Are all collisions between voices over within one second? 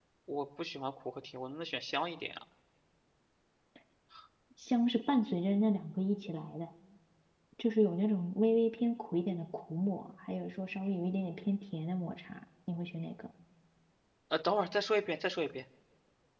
Yes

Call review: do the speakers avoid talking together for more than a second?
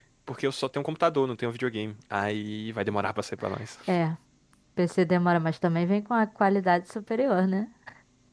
Yes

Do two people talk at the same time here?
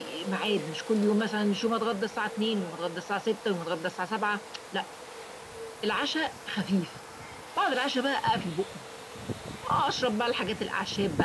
No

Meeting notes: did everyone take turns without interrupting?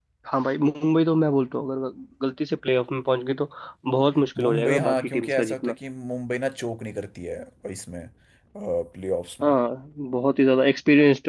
No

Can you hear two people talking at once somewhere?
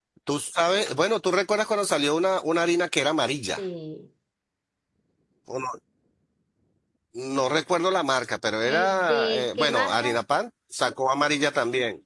Yes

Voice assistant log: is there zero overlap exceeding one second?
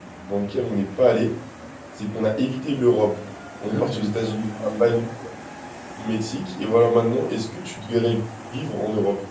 No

